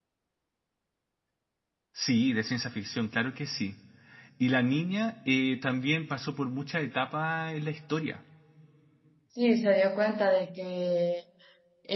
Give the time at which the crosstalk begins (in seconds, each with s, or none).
none